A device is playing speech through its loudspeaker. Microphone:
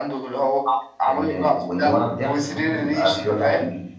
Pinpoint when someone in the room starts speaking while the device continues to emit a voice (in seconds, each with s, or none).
1.1 s